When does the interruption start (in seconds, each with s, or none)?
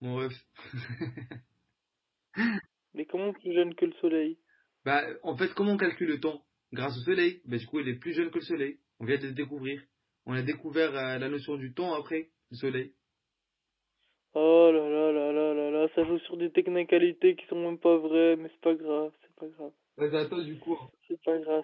none